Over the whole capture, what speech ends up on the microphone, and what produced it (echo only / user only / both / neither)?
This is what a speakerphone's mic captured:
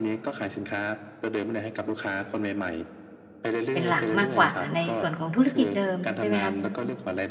both